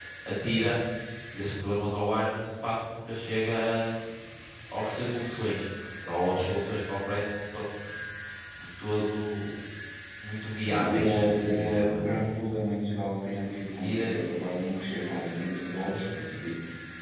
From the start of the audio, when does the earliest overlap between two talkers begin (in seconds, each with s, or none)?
10.7 s